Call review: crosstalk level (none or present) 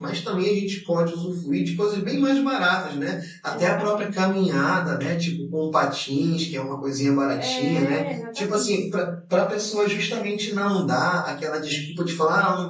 present